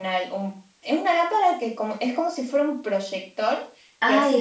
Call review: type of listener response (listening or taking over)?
taking over